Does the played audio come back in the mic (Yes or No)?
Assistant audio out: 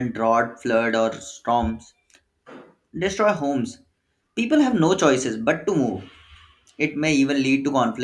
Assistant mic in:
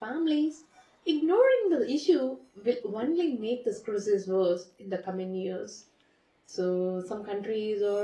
No